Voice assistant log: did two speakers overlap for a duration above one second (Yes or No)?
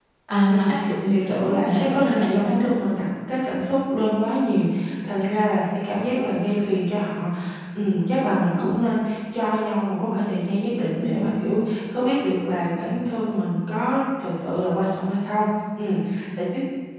Yes